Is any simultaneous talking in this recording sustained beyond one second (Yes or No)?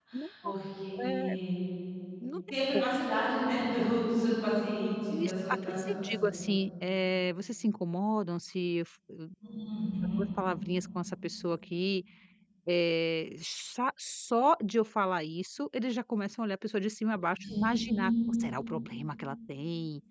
Yes